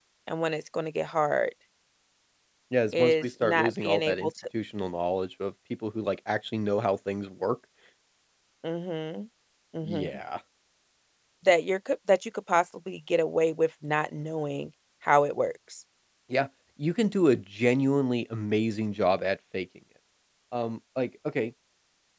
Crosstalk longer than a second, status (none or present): present